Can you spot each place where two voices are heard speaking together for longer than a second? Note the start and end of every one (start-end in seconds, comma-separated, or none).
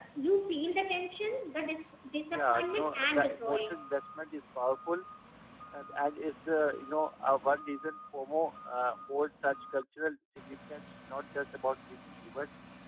2.3-3.8